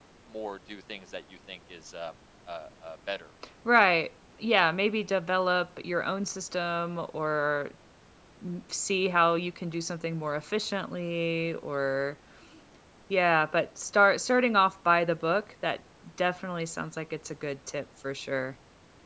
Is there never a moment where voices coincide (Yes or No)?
Yes